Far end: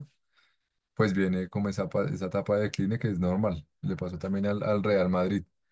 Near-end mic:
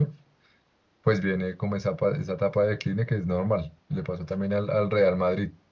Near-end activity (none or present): none